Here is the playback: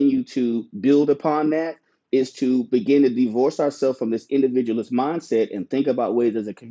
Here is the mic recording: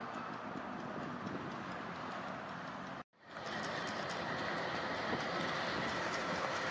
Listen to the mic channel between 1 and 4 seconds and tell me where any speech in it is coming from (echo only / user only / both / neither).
neither